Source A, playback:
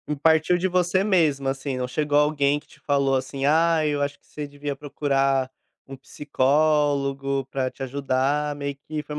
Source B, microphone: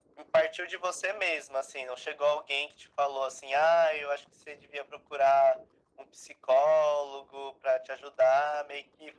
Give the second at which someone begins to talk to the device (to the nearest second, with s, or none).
none